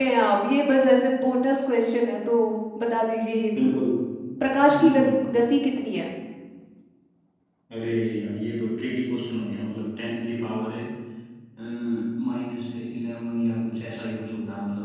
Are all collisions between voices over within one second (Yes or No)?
Yes